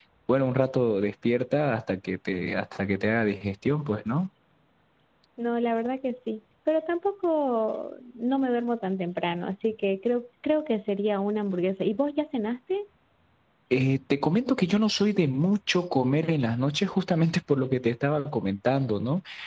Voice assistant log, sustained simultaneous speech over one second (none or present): none